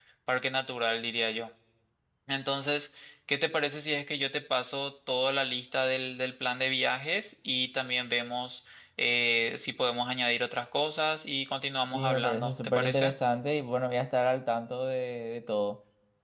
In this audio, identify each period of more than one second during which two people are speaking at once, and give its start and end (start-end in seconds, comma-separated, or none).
11.9-13.1